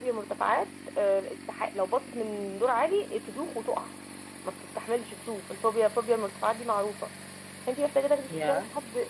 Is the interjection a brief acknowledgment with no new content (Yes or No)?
Yes